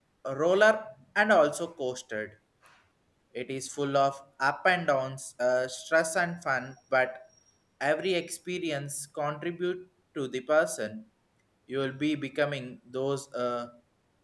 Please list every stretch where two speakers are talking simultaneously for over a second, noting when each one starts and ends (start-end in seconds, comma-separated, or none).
none